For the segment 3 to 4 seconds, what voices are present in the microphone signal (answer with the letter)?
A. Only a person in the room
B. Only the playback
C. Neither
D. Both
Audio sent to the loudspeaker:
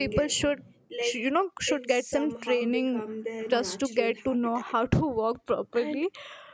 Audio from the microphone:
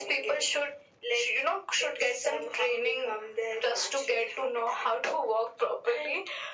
B